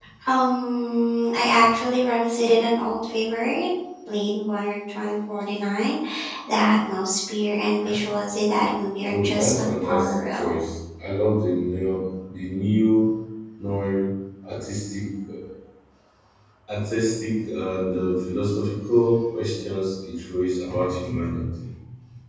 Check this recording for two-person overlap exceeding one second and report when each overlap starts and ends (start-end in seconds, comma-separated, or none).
9.1-10.6